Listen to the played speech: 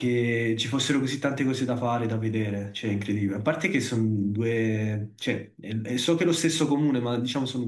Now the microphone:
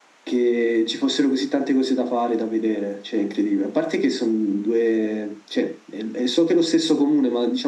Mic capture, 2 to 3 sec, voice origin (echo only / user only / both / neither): echo only